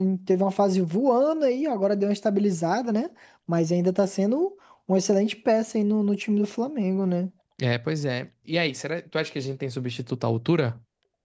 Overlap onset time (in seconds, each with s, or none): none